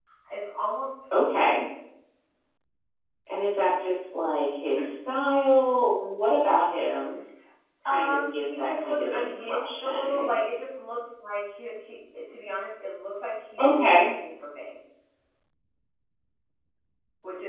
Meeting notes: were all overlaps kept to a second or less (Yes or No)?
No